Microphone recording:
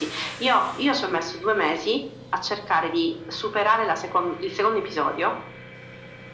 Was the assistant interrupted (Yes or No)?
No